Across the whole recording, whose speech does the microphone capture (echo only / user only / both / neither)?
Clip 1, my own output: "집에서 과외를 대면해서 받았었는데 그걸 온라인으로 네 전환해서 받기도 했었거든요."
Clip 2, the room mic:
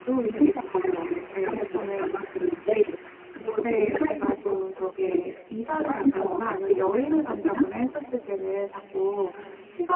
both